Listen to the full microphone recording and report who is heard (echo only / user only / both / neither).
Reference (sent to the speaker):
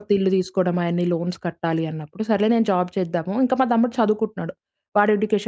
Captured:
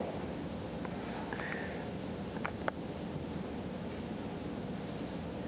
neither